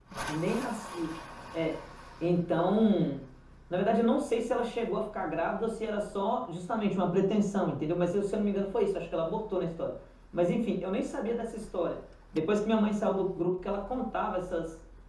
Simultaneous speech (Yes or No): No